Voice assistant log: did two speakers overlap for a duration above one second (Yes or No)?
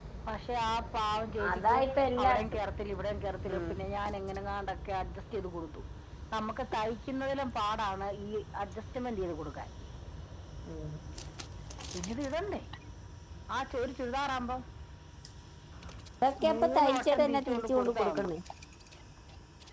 Yes